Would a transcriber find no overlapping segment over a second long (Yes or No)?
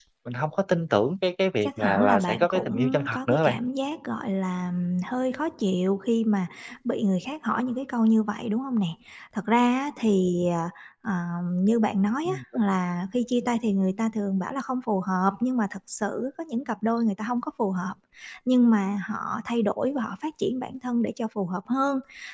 No